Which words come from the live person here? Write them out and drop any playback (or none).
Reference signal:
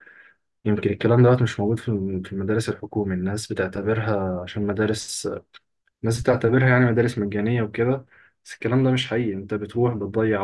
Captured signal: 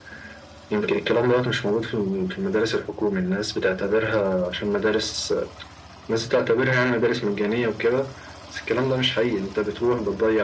none